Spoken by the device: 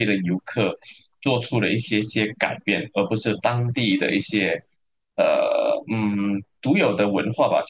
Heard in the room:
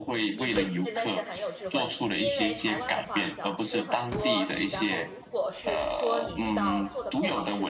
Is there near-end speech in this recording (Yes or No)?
Yes